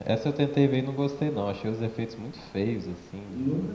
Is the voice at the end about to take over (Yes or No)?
Yes